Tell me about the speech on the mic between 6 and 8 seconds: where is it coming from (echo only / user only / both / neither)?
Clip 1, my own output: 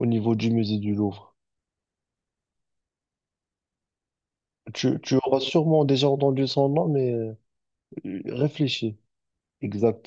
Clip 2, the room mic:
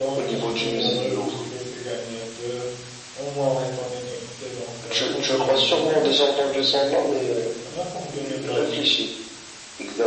both